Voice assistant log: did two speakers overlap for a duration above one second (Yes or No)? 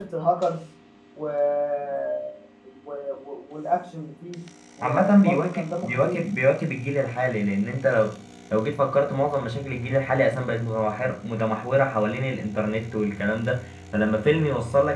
Yes